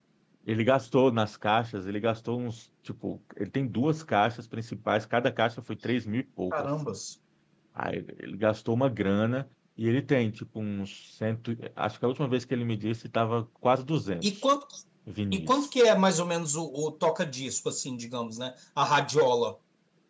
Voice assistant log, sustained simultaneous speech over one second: none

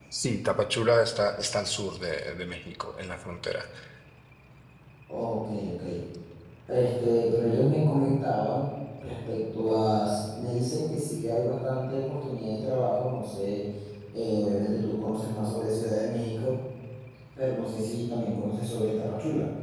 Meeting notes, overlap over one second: none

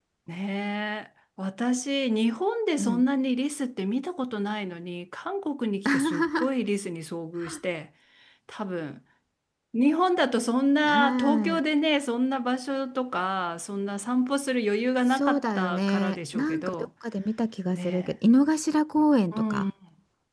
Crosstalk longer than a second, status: present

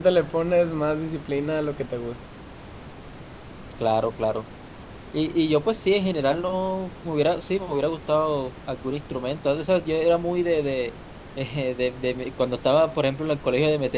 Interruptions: none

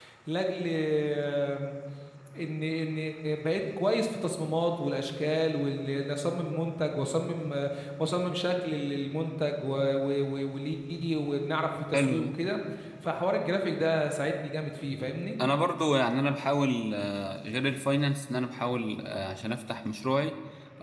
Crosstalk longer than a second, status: none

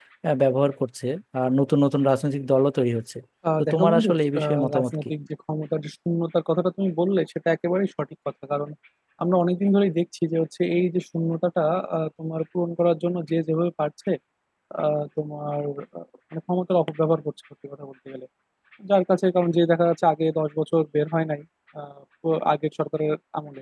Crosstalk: present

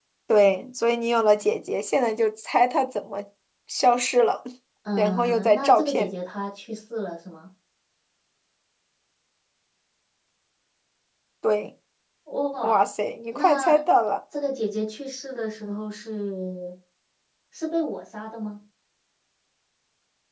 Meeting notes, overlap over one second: present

